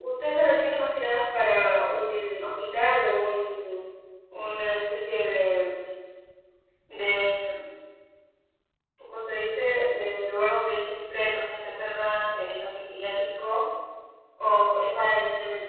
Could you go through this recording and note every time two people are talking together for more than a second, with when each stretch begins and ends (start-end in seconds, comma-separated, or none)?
none